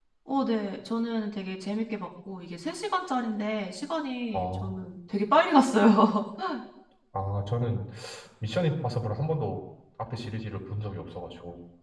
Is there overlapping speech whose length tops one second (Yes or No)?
No